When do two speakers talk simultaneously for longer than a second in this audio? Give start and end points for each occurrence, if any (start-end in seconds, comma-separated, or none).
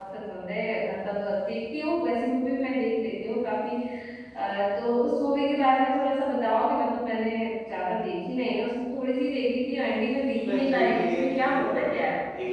10.4-11.6